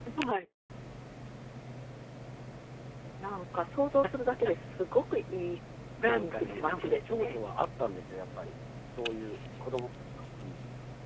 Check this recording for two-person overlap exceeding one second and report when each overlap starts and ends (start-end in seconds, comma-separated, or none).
6.0-7.4